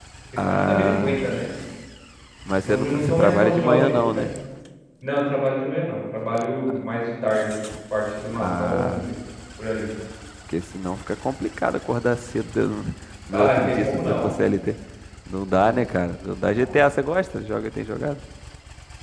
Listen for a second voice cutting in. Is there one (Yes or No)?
Yes